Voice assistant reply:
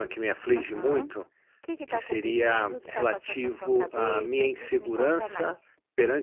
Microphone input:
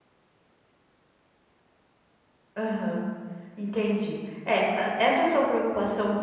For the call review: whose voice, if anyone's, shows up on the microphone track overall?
user only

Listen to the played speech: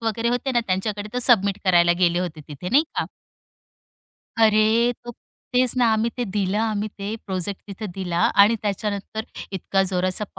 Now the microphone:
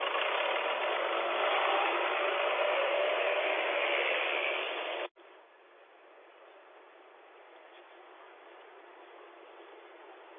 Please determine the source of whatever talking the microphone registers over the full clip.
neither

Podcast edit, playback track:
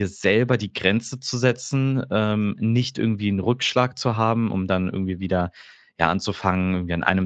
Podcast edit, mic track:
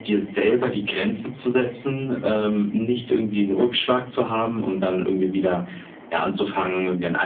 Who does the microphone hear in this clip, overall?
echo only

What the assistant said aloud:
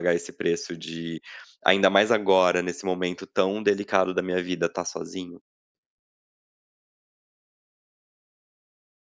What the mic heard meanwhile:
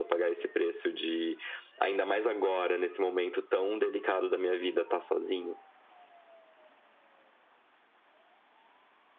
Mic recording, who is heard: echo only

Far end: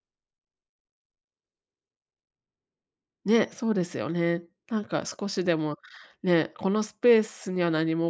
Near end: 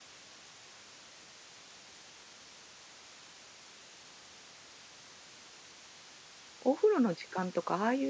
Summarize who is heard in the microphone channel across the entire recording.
user only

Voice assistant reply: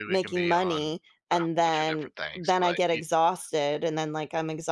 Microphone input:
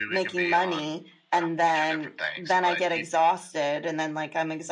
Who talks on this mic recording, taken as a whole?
echo only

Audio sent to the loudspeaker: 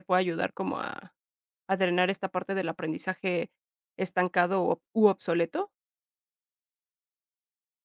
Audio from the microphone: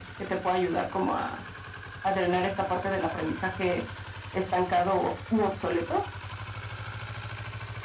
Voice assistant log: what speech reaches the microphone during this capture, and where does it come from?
echo only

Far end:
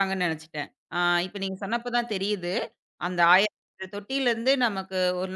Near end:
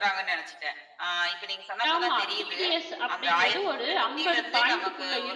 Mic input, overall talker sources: both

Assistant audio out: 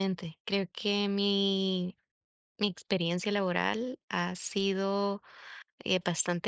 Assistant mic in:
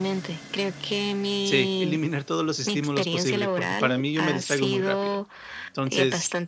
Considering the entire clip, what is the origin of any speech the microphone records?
both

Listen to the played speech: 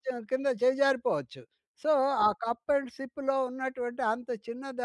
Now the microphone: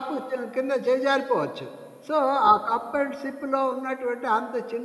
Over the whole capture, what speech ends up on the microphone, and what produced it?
echo only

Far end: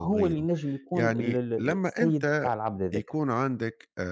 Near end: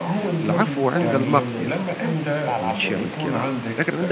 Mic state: both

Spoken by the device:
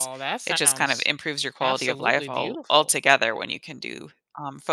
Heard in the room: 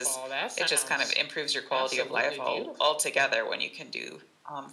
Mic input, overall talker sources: echo only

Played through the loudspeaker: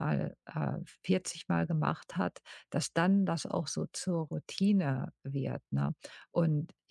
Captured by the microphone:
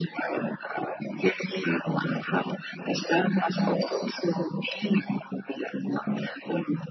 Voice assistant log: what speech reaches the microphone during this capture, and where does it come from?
echo only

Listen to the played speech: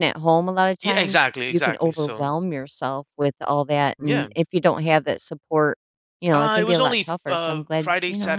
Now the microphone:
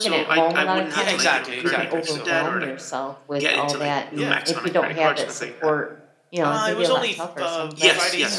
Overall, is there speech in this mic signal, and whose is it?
both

